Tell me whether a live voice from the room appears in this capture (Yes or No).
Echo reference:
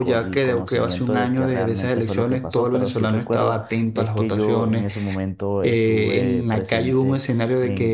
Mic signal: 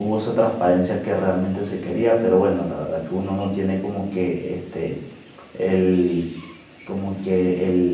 Yes